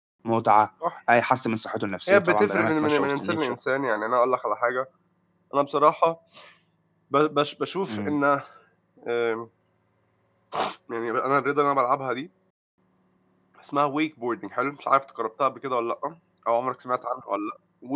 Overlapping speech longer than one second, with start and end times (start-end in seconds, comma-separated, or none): 2.1-3.6